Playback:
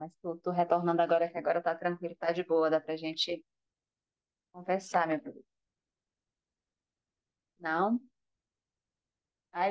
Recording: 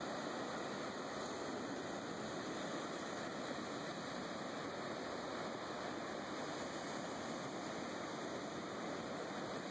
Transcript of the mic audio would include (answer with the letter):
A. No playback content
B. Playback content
A